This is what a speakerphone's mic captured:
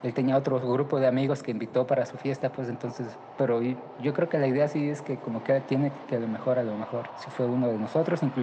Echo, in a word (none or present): present